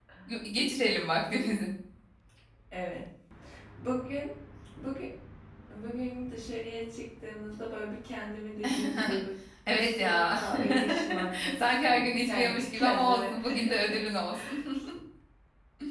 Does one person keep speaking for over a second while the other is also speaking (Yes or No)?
Yes